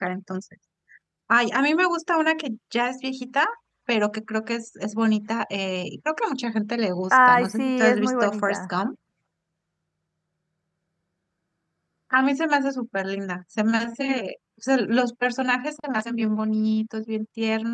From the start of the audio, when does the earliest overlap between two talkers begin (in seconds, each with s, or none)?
7.1 s